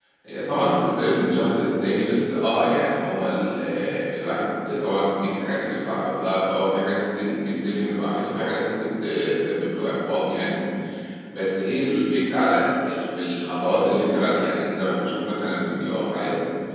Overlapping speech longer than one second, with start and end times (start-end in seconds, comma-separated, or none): none